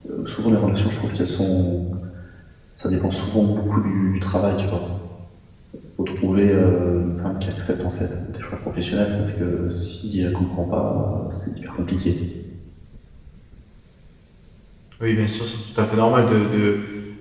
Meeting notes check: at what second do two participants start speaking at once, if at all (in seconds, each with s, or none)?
none